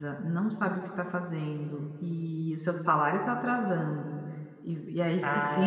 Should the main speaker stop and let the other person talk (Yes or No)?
No